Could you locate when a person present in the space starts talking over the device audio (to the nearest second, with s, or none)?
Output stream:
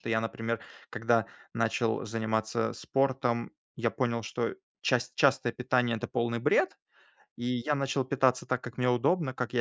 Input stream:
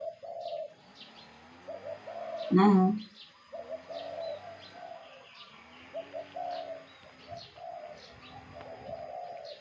3 s